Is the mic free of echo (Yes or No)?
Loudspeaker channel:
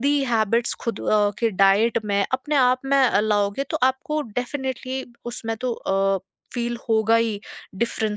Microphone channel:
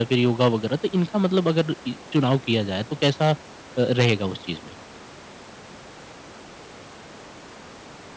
Yes